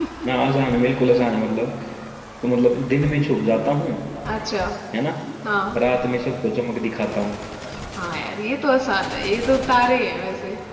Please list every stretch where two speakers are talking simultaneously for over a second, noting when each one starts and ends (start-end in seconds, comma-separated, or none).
none